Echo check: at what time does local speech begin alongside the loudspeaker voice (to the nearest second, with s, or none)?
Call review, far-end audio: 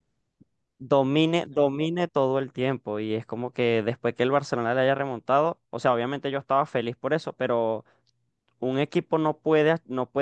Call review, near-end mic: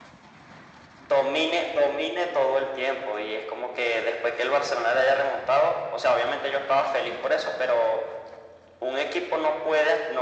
none